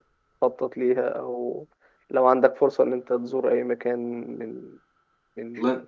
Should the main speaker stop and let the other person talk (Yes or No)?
Yes